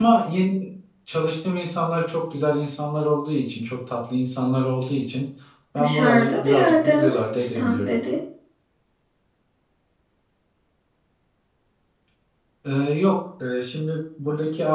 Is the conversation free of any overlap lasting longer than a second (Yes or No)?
No